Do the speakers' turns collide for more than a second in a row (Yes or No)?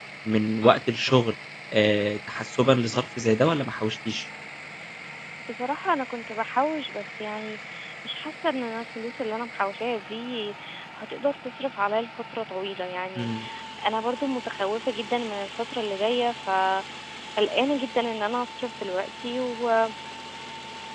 No